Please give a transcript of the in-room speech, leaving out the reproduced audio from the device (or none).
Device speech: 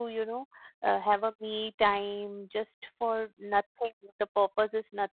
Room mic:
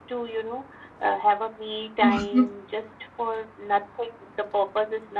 हुँ, हुँ।